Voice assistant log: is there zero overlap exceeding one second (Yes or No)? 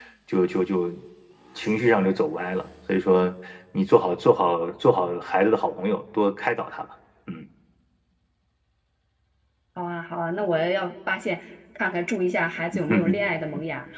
Yes